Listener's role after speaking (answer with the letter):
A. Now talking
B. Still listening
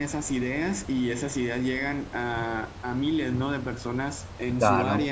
B